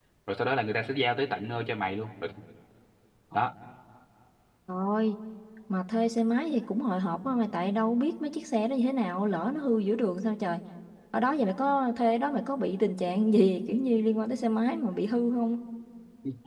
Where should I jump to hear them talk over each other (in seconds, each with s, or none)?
none